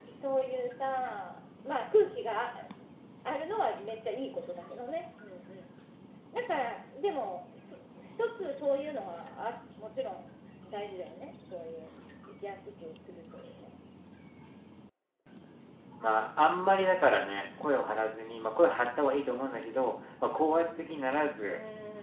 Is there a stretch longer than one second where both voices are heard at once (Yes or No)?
No